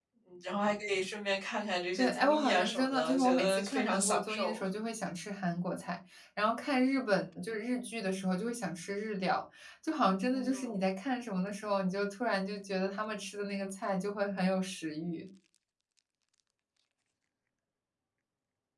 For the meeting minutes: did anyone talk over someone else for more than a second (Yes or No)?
Yes